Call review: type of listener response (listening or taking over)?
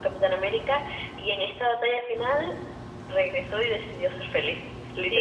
taking over